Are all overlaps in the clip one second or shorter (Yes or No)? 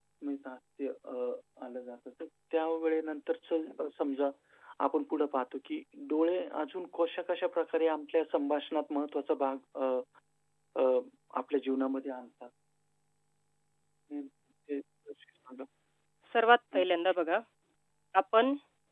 Yes